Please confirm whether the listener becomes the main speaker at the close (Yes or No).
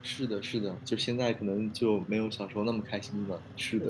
Yes